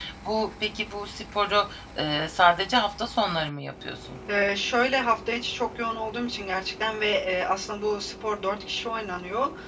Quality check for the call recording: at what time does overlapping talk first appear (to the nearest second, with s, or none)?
none